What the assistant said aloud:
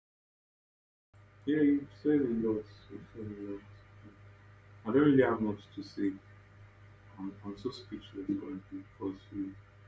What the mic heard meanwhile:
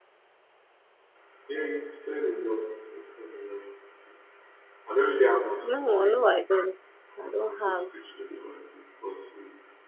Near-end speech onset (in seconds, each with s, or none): 5.6 s